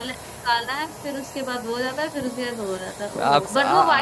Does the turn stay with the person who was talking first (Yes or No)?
No